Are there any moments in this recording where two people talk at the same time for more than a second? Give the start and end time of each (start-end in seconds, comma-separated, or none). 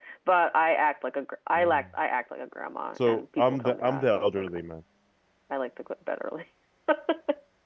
3.1-4.6